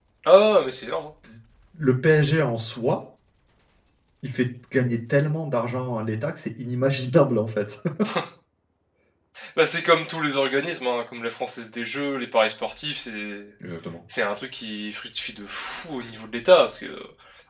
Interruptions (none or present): none